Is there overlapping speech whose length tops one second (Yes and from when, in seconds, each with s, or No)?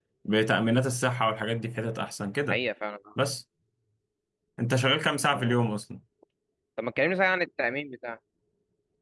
No